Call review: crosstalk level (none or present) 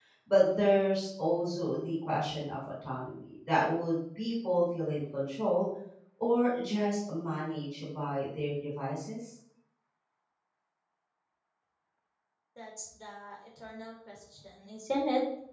none